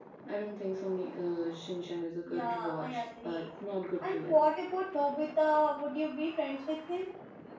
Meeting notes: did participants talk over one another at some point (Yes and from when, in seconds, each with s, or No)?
Yes, from 2.3 s